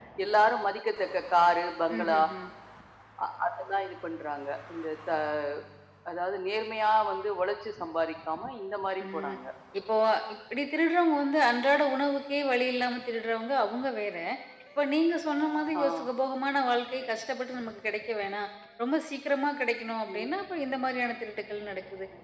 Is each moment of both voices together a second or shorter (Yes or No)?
Yes